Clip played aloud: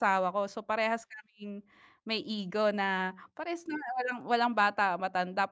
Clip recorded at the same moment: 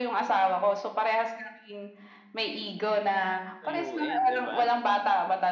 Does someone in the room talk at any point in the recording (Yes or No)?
Yes